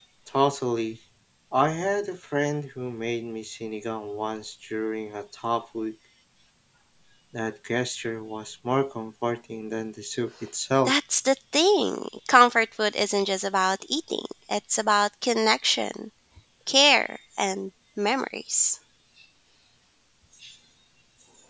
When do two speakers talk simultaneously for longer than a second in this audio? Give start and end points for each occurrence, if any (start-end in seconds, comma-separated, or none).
none